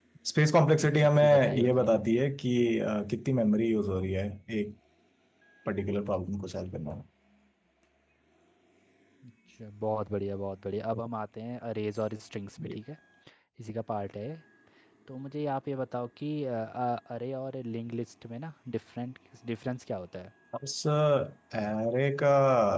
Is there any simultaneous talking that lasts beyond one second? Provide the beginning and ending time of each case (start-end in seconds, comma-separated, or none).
0.8-2.0